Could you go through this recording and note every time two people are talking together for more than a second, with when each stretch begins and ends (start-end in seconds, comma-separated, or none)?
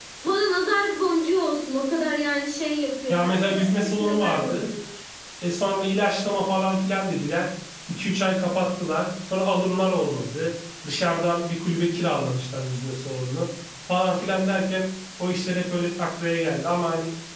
3.1-4.6